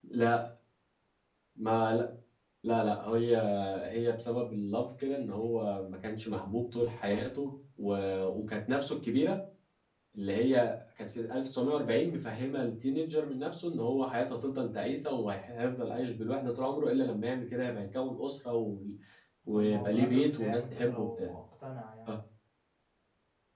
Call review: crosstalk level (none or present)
present